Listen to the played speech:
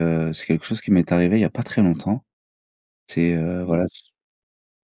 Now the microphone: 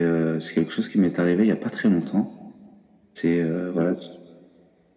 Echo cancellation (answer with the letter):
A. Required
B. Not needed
A